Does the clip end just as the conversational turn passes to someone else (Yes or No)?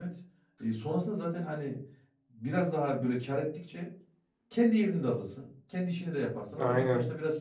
No